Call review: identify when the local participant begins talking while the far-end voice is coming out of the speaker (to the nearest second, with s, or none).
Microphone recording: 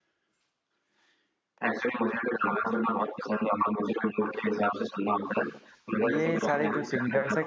6 s